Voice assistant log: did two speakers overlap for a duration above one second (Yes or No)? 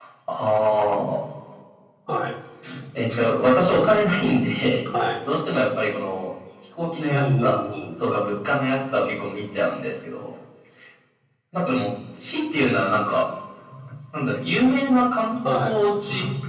No